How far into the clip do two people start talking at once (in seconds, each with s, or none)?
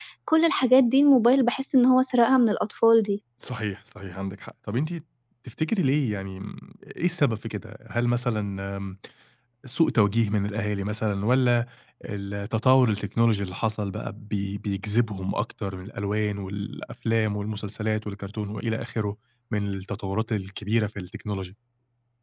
none